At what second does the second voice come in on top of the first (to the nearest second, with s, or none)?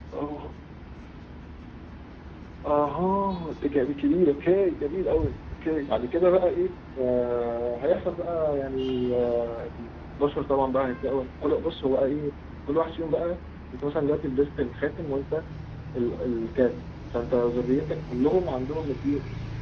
none